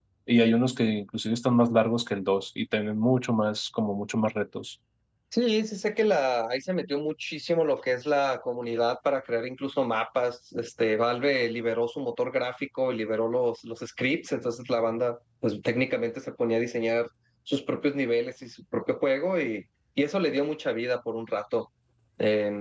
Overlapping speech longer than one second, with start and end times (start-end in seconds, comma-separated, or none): none